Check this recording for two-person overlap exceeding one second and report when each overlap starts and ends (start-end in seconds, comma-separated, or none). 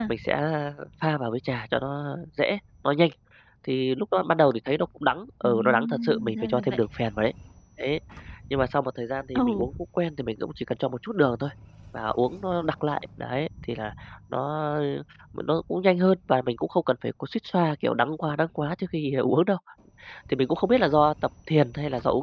5.4-6.8